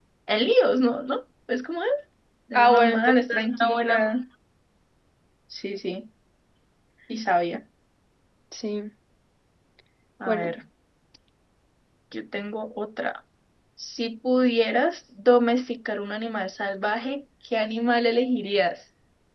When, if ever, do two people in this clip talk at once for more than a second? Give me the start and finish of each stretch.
2.5-4.0

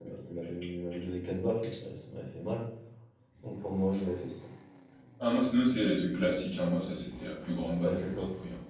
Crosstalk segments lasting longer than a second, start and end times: none

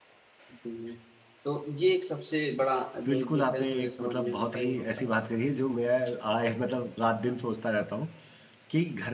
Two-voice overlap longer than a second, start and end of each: 3.1-5.1

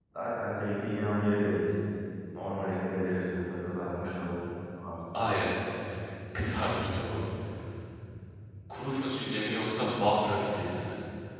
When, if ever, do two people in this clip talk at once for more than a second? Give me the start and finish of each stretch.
none

